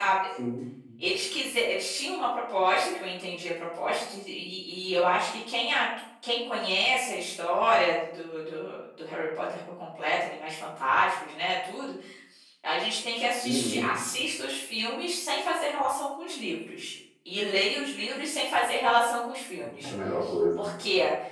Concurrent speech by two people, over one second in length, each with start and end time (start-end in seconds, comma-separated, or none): none